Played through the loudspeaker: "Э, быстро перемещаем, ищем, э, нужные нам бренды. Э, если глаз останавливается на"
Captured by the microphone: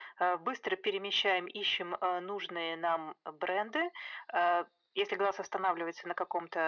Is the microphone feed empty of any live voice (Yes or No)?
Yes